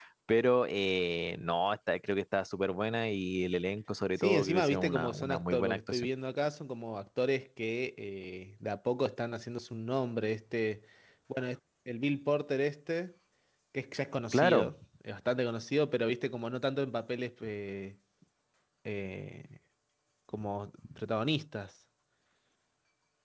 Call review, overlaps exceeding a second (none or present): present